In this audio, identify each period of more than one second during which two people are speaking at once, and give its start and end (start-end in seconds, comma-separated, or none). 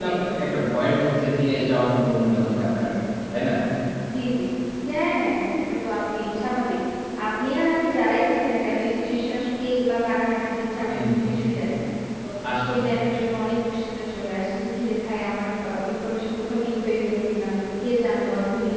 none